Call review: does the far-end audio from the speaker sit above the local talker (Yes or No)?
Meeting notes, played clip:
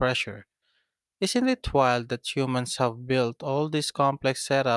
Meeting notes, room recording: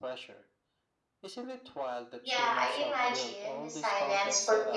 No